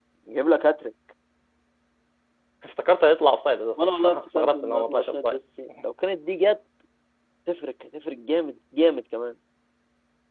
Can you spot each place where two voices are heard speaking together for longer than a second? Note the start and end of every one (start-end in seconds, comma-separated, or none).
3.8-5.4